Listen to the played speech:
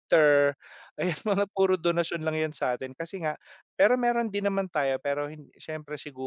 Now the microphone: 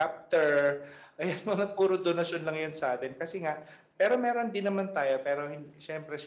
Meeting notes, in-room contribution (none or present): none